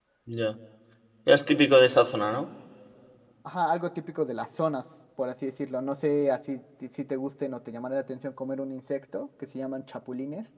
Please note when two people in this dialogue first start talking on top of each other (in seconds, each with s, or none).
none